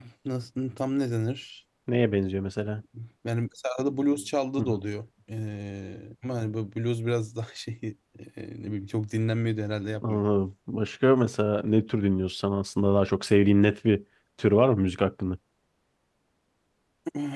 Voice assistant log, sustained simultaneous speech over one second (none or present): none